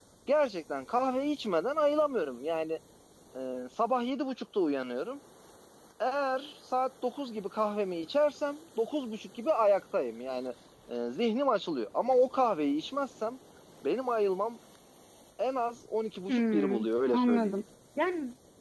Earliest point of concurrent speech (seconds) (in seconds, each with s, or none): 16.3 s